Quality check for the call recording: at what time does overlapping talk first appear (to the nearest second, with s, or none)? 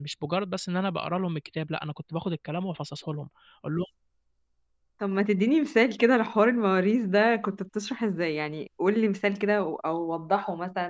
none